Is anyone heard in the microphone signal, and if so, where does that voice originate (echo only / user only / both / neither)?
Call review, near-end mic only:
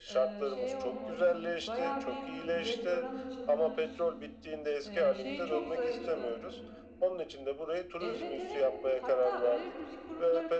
both